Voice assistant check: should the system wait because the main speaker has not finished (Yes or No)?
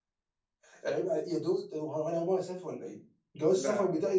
Yes